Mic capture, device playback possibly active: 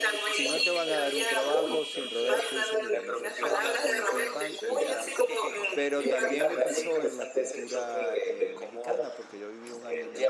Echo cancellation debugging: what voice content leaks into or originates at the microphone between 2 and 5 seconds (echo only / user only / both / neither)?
both